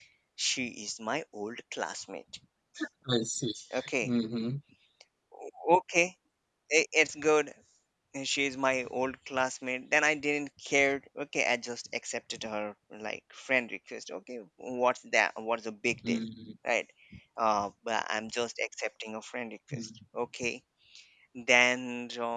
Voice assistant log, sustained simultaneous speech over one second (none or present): none